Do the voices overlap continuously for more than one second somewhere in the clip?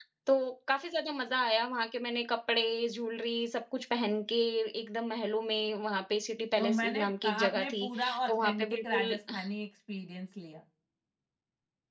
Yes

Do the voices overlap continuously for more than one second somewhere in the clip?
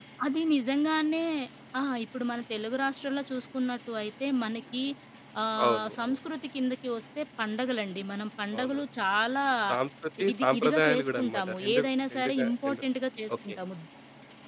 Yes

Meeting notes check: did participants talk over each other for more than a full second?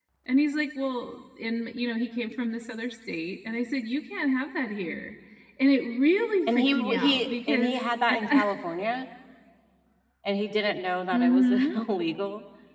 Yes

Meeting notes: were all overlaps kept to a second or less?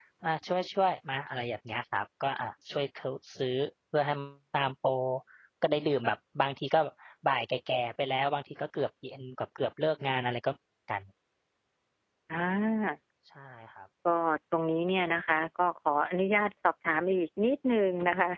Yes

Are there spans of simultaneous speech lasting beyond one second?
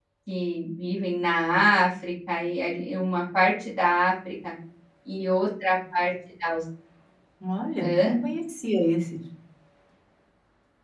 No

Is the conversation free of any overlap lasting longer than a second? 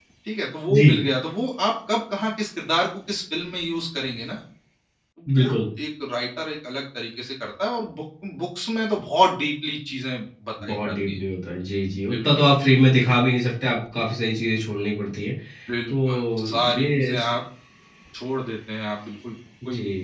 No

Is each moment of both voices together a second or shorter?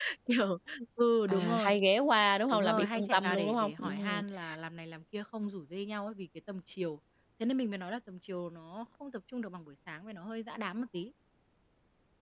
No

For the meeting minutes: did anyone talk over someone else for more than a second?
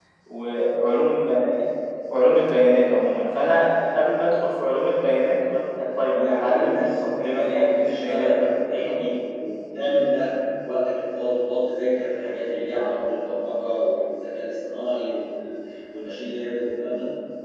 Yes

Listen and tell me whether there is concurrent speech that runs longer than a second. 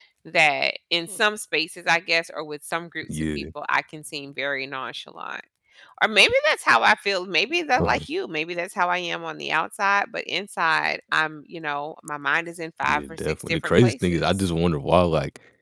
Yes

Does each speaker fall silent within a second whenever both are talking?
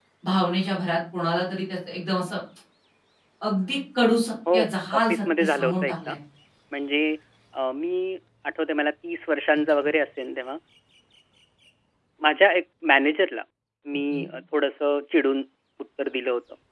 No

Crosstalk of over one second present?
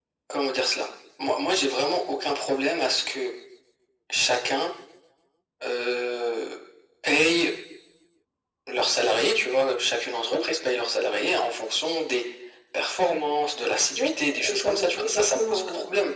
Yes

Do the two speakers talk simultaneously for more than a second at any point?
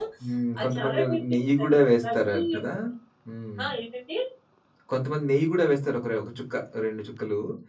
Yes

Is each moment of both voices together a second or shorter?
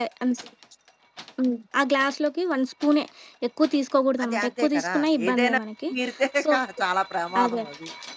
No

